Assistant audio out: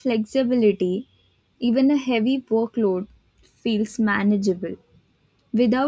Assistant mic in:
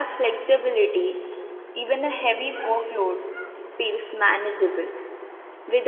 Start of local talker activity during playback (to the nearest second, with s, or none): none